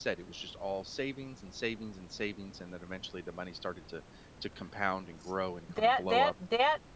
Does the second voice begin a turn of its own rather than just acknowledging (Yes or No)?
Yes